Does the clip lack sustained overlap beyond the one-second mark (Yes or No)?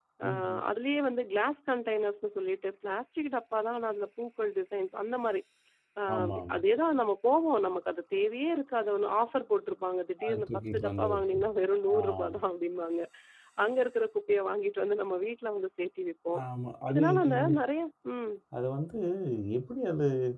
No